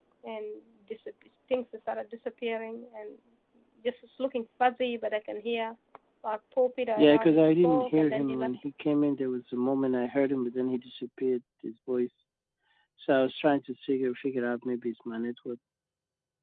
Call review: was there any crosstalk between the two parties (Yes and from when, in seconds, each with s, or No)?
Yes, from 7.0 s